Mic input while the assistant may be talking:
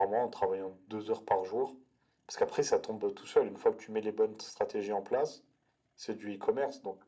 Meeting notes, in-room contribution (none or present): none